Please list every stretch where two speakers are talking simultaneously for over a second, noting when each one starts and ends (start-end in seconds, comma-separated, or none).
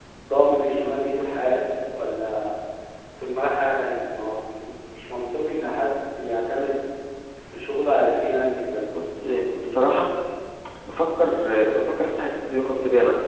none